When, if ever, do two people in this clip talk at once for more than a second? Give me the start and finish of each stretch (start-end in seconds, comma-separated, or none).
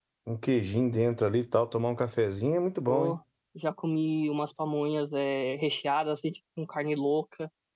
none